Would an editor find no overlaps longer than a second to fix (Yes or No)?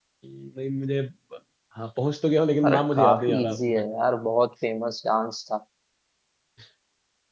No